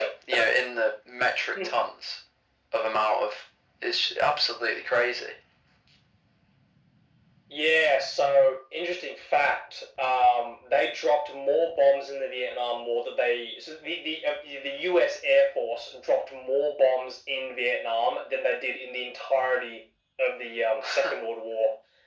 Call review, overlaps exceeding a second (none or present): none